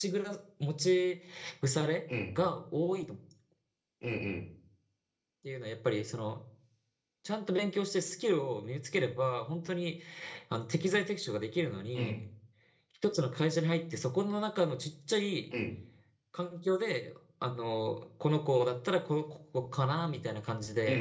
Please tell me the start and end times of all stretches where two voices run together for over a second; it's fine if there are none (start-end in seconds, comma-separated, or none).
none